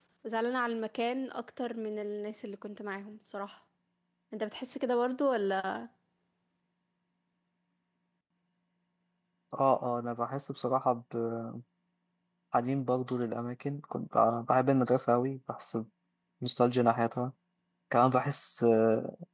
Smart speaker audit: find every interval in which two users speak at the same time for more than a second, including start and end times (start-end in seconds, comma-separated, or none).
none